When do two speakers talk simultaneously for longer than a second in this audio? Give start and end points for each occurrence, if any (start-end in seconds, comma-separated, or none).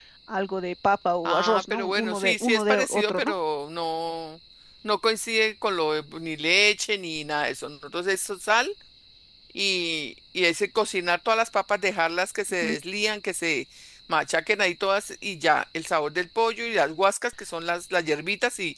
1.2-3.3